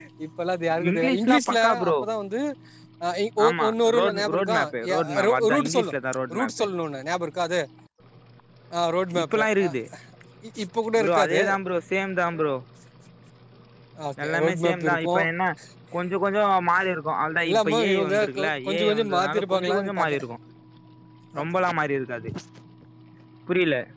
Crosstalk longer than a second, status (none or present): present